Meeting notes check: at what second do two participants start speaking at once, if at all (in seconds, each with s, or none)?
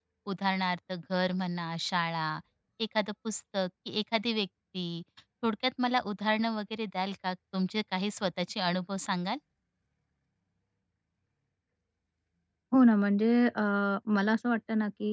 none